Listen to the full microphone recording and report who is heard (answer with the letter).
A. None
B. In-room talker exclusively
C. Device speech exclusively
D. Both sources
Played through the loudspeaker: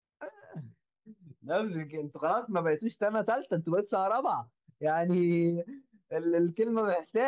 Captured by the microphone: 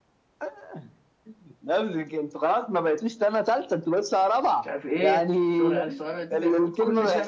D